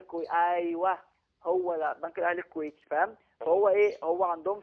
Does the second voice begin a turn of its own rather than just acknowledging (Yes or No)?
No